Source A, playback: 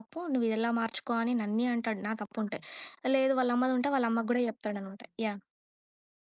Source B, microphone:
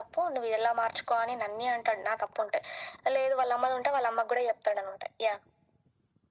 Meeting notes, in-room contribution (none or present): none